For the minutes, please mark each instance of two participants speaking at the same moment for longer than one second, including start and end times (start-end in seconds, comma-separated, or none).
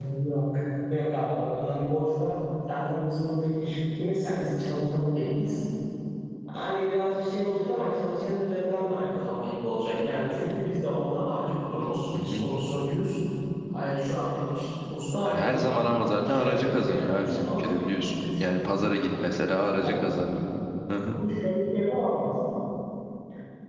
16.2-18.5